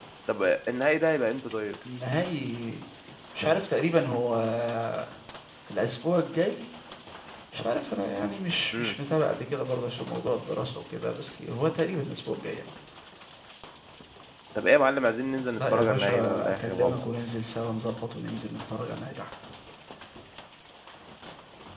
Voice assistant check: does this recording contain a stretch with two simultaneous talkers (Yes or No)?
Yes